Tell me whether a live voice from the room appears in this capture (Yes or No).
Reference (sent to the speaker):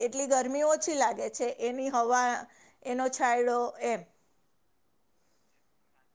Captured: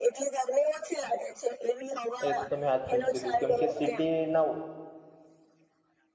Yes